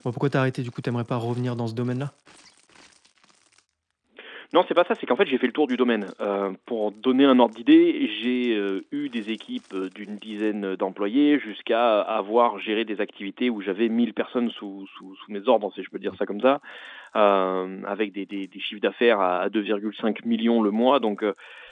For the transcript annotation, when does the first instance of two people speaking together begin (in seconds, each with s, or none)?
none